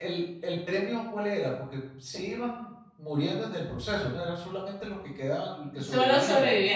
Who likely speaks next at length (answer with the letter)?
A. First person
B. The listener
B